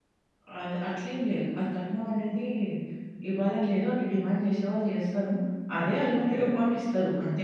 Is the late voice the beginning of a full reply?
No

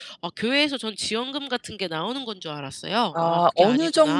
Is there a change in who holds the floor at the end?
Yes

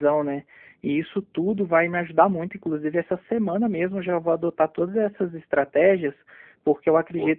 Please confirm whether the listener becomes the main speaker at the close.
No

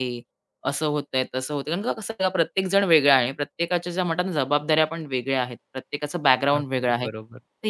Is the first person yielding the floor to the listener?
No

